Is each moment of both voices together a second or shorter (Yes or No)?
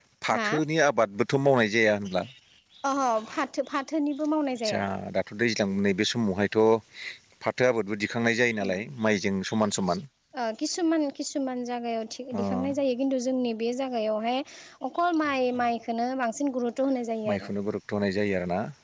Yes